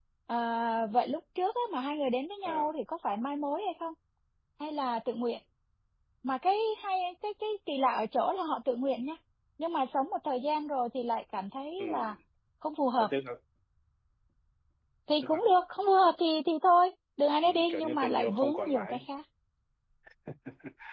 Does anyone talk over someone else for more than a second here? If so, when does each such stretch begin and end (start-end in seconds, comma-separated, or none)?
17.4-19.0